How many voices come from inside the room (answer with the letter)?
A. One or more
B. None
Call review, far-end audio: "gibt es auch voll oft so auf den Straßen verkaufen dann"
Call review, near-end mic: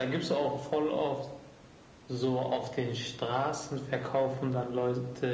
B